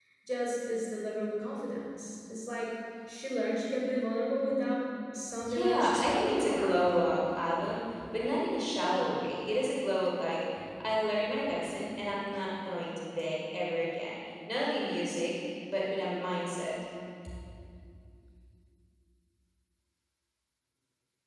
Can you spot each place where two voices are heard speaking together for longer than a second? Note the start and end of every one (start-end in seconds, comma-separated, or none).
5.5-6.8